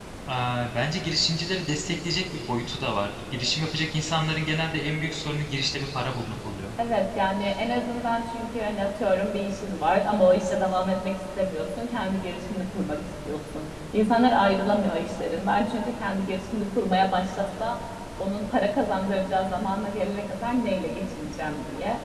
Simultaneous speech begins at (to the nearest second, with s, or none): none